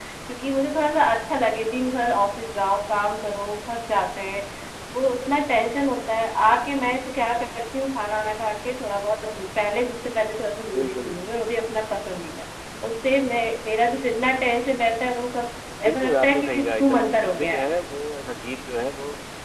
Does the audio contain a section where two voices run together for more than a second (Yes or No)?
Yes